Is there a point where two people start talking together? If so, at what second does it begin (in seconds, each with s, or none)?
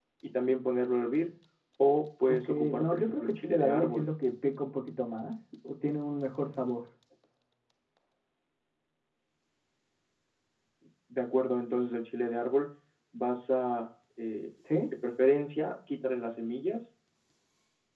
2.3 s